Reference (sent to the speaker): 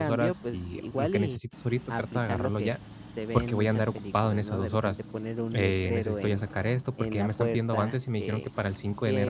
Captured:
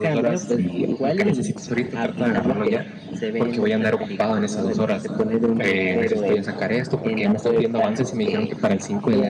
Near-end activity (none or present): none